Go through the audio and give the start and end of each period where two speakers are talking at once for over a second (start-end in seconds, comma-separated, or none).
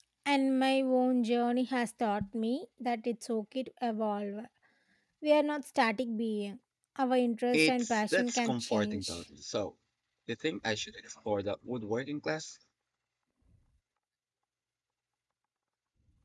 7.5-9.1